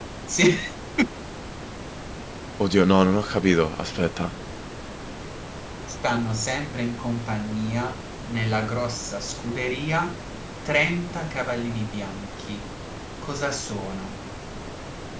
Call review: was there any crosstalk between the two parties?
No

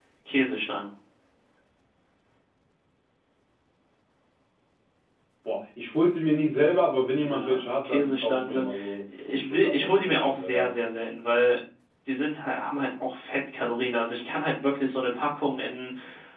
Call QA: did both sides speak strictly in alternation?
No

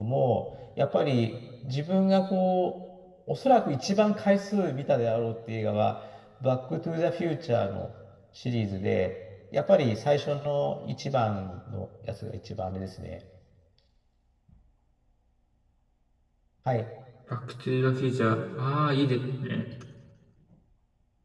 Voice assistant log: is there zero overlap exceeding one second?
Yes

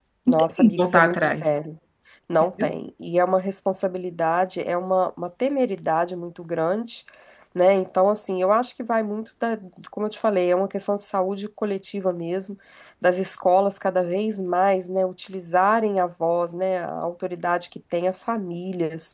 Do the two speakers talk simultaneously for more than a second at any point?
Yes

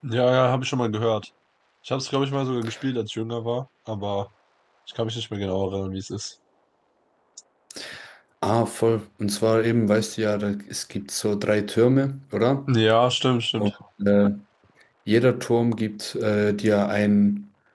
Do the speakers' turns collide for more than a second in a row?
No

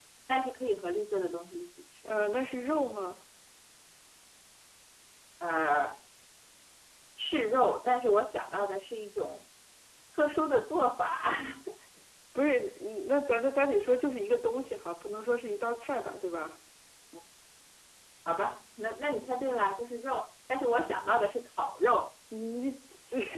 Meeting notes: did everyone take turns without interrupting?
Yes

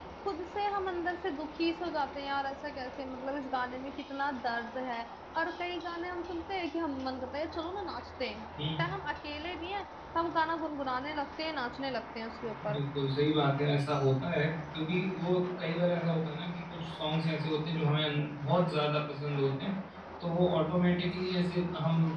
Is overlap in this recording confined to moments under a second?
Yes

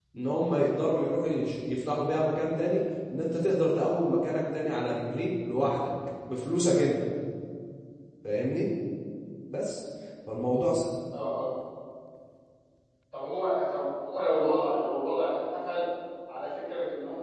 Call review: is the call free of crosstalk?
Yes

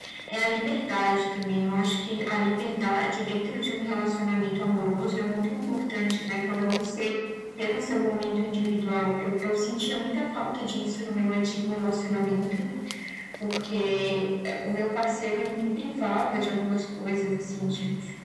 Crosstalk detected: No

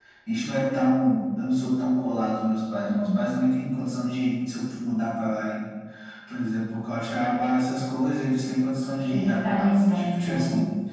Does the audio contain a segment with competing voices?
Yes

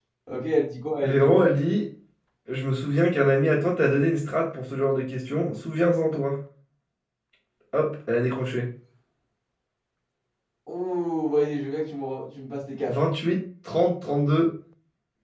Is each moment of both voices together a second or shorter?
Yes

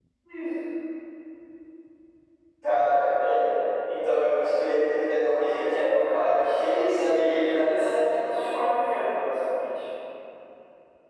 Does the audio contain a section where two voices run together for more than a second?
Yes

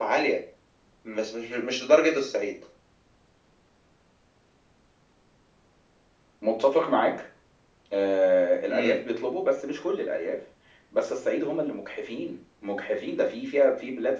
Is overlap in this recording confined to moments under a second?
Yes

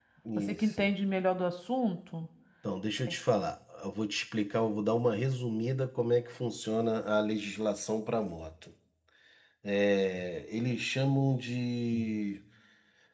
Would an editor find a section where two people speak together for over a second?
No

